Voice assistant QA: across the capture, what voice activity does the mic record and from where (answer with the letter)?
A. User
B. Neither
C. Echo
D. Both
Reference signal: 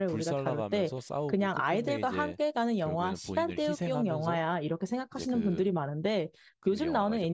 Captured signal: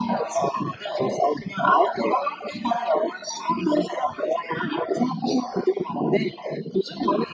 C